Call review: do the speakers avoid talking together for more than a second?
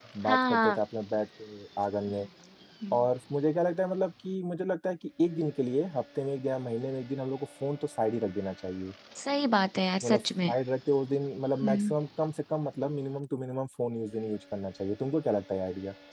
Yes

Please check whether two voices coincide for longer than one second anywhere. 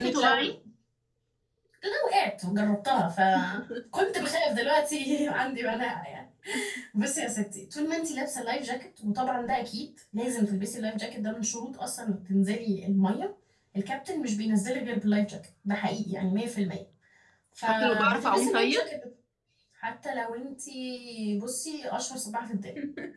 Yes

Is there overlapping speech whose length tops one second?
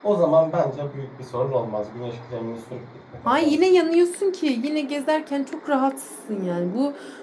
No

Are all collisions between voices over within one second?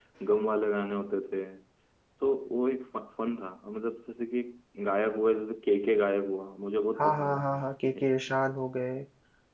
Yes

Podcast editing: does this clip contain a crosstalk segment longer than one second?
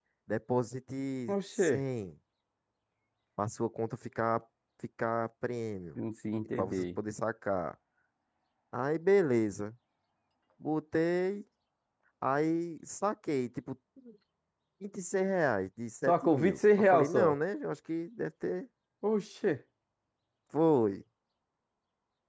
Yes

